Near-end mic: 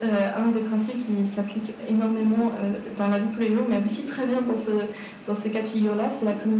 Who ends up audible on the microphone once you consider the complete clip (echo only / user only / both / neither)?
echo only